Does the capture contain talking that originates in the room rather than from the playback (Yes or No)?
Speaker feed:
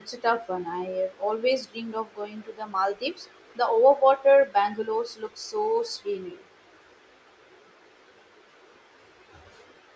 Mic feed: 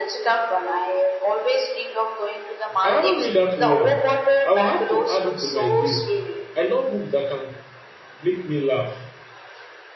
Yes